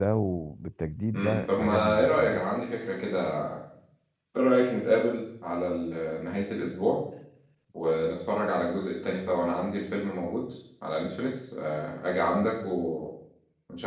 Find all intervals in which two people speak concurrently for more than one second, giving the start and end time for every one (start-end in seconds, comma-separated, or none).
1.2-2.5